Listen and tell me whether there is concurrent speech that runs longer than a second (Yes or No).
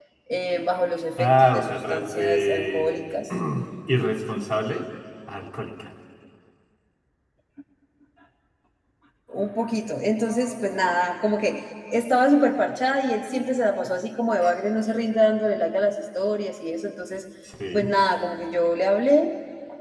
Yes